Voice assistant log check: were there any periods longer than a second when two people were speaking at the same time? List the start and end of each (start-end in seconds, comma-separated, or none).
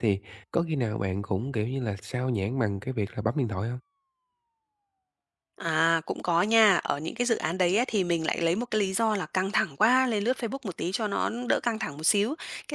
none